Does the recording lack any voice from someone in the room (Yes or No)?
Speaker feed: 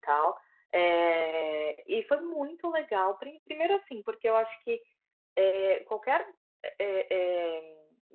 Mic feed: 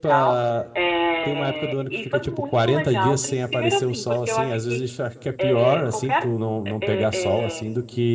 No